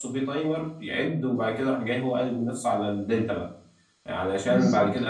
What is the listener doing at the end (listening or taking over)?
listening